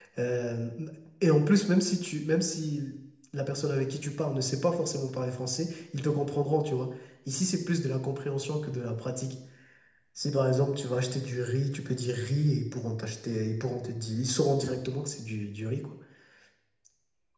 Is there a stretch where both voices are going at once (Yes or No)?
No